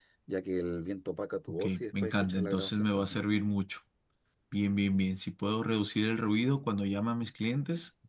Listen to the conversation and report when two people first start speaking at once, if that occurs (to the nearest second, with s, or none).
2 s